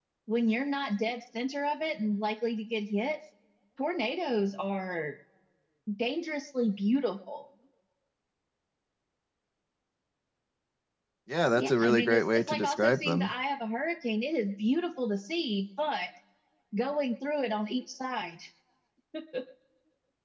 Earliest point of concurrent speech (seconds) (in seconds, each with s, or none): 11.6 s